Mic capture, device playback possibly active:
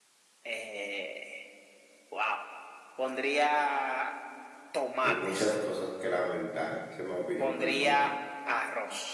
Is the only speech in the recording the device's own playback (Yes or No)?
No